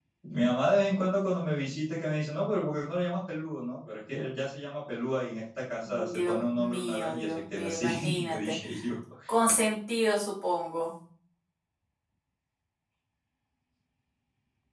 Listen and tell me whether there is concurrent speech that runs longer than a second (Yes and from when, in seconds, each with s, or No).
Yes, from 5.8 s